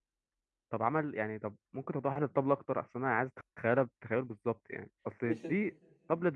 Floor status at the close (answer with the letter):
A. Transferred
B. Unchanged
B